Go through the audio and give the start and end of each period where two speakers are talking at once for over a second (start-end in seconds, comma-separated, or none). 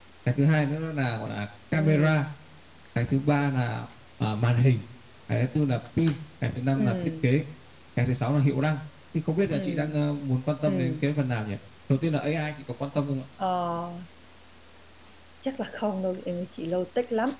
none